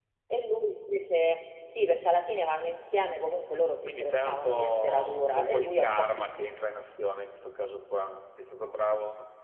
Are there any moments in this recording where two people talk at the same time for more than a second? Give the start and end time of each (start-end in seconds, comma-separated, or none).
3.9-6.1